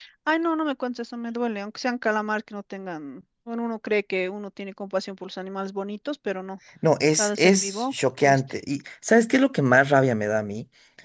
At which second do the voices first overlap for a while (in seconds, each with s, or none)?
7.1 s